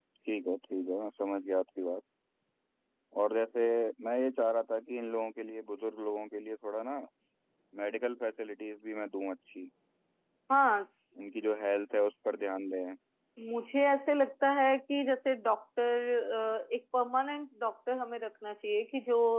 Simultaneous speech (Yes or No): No